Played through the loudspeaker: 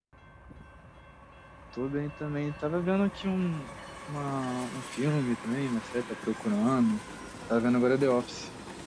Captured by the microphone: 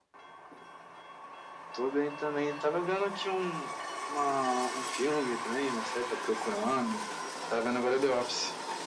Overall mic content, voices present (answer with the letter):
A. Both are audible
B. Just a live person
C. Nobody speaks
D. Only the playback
D